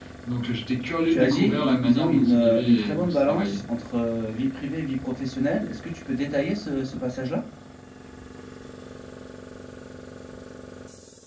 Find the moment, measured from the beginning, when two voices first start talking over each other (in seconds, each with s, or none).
1.1 s